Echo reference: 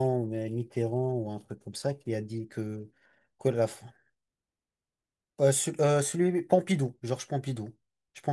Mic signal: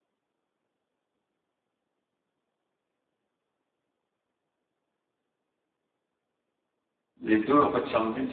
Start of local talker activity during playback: 7 s

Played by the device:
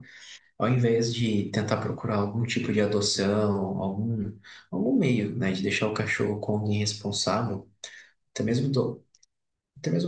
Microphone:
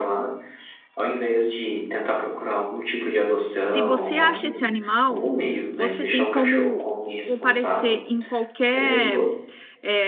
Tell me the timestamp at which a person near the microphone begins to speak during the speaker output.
4 s

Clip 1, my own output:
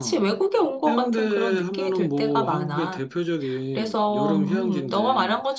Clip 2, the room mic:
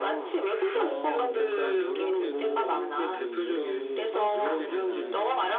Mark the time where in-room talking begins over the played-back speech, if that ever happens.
1 s

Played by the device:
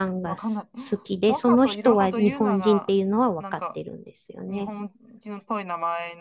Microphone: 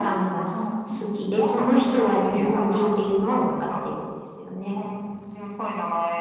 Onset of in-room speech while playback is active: none

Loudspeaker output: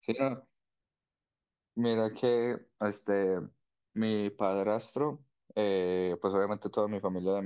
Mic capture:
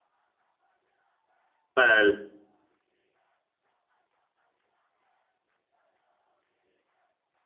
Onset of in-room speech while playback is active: 2 s

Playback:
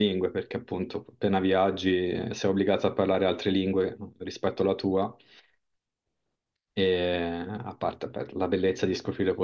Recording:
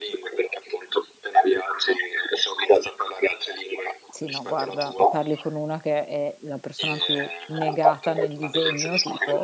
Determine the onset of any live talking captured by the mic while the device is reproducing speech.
4 s

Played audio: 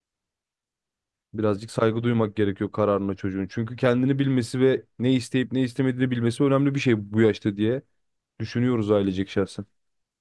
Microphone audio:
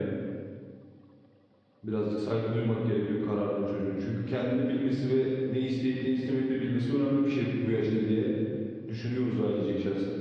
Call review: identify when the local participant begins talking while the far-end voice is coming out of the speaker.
none

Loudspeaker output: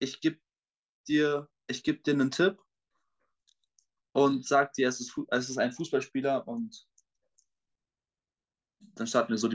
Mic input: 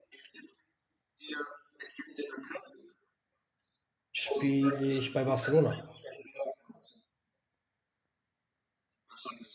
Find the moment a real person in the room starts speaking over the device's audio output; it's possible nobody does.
4 s

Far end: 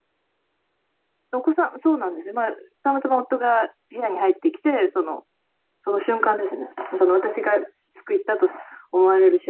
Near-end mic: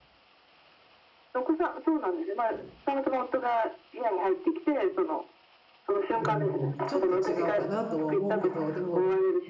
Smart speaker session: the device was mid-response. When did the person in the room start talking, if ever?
6 s

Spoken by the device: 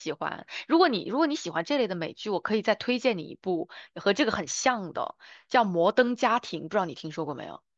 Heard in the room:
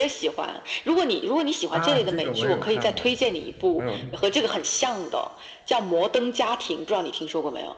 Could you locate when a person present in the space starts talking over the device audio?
2 s

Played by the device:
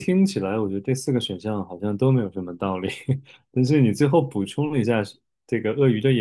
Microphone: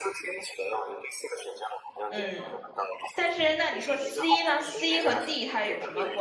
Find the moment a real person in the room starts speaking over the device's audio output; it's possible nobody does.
2 s

